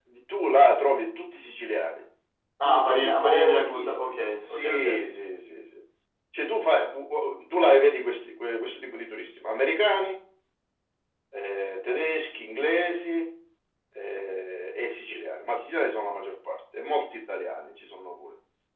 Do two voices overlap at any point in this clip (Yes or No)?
Yes